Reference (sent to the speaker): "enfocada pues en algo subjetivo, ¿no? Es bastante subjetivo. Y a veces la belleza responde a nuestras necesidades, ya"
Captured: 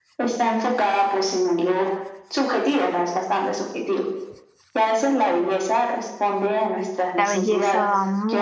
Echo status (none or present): present